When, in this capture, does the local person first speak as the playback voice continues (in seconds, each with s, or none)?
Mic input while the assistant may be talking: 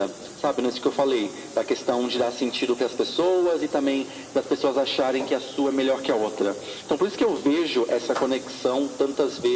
none